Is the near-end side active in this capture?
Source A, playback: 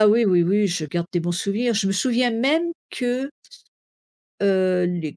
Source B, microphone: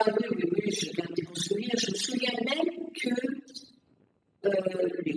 No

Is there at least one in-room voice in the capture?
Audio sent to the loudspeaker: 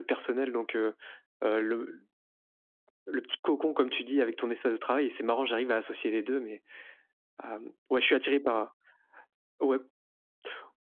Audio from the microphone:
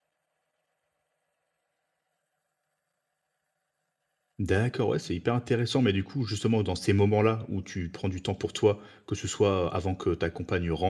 Yes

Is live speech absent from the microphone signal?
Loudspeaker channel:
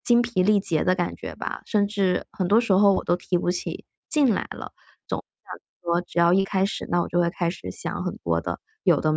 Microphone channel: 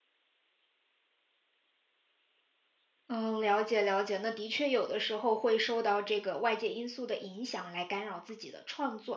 No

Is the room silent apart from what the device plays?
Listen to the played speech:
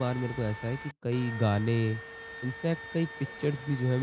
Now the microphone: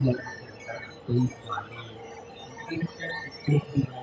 Yes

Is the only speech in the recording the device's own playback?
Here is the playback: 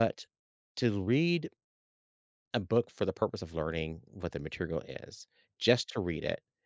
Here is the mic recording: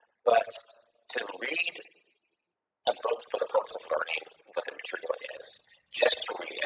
Yes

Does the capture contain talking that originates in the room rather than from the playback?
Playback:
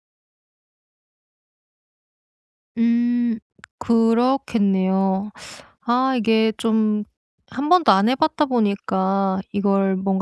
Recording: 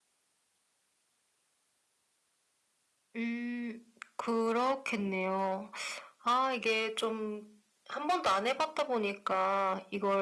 No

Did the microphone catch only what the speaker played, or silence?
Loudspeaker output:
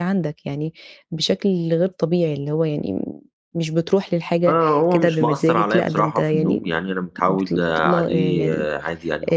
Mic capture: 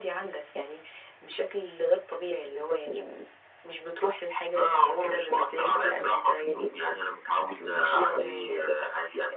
Yes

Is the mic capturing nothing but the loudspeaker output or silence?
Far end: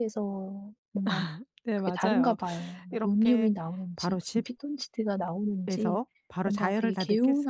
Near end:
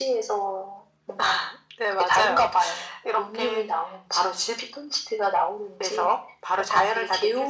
Yes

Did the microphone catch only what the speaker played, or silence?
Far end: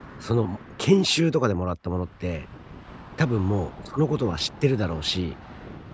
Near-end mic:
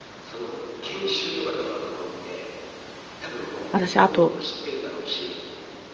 No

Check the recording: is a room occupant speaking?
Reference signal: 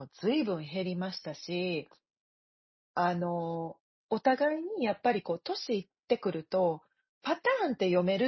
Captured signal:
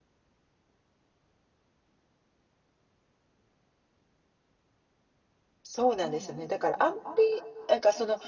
Yes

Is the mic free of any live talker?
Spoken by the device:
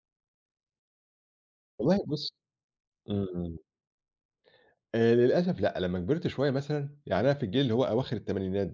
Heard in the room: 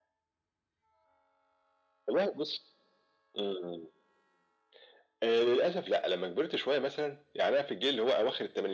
Yes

